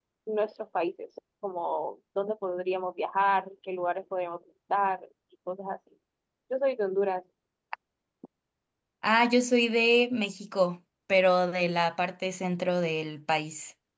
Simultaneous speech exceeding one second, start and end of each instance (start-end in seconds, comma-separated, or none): none